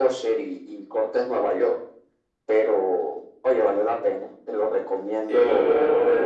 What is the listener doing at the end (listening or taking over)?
taking over